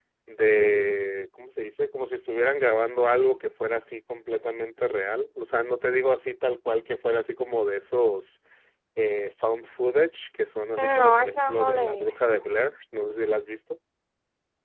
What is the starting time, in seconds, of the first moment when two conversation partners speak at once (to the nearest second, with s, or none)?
11 s